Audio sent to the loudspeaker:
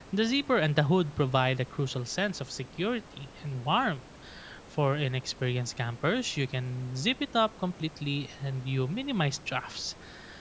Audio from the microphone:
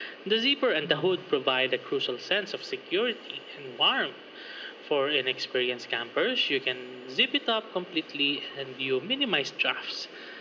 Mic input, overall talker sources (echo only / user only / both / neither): both